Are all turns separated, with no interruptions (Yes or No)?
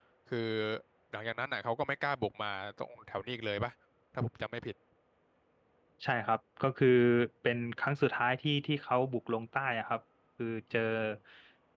Yes